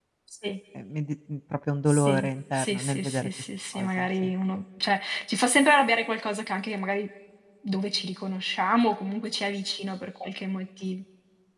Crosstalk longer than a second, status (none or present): present